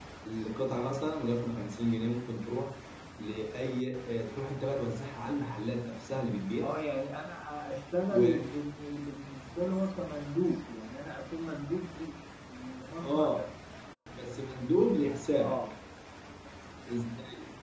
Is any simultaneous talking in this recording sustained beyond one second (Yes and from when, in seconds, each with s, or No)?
No